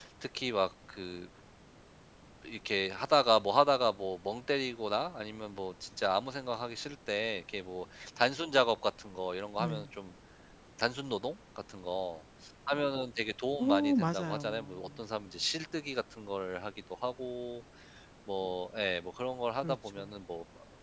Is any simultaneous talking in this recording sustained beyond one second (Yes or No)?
Yes